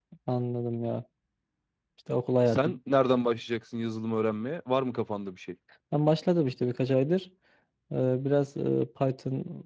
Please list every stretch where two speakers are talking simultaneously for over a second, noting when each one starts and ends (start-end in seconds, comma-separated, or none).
none